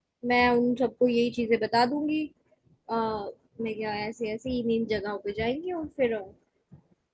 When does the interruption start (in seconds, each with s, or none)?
none